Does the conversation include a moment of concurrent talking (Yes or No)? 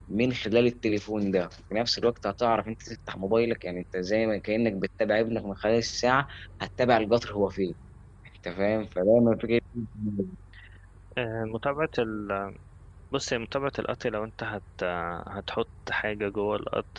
No